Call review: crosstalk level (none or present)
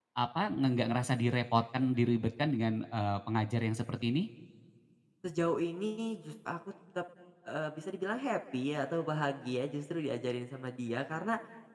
none